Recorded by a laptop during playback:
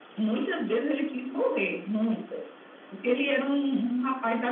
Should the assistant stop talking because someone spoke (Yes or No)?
No